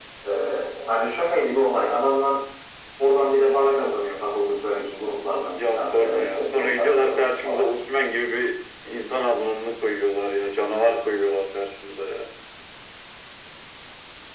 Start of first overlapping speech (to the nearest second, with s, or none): 6 s